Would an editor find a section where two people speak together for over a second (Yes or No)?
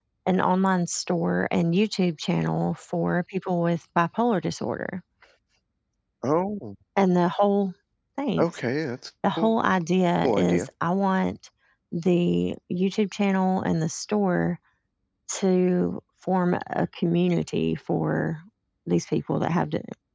No